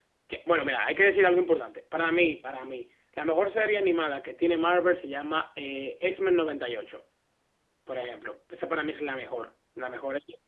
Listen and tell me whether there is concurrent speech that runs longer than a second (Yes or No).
No